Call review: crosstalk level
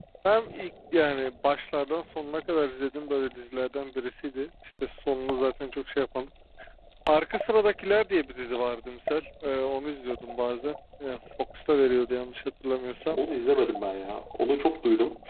none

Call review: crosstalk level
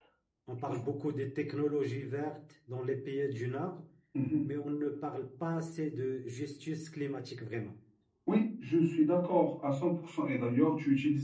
none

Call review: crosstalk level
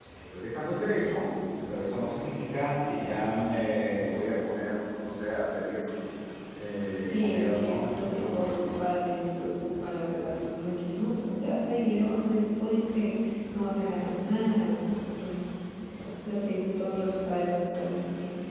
present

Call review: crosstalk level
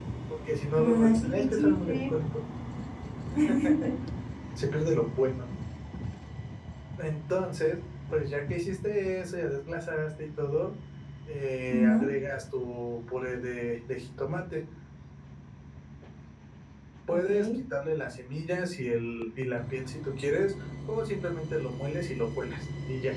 present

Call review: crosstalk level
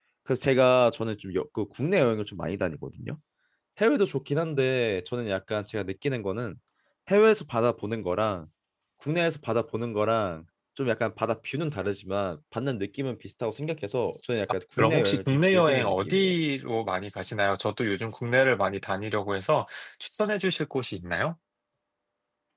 present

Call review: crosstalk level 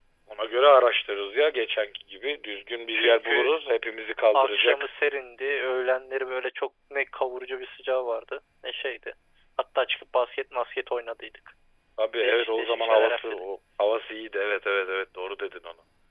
present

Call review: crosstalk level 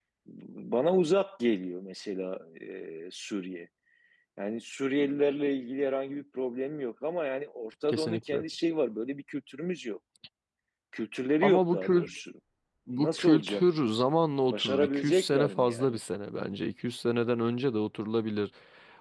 present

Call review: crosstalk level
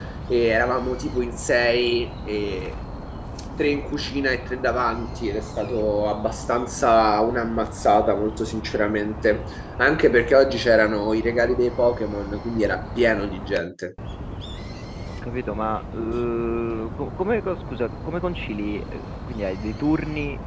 none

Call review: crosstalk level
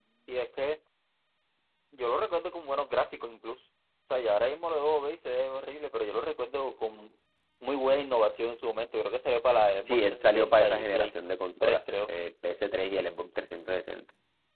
present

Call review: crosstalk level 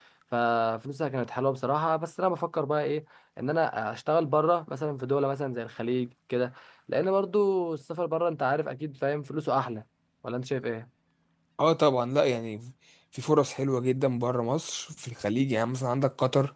none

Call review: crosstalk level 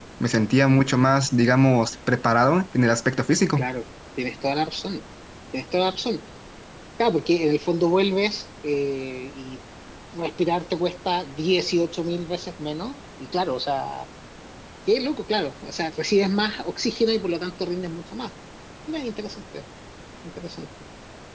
none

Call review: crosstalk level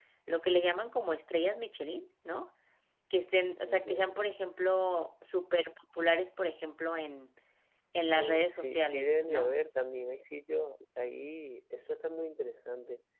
present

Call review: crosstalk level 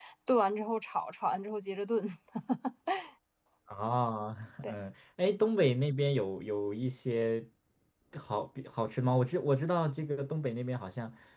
none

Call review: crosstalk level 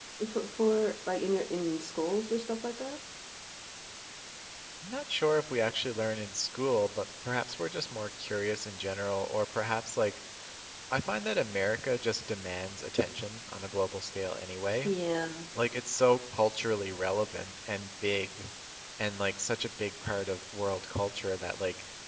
none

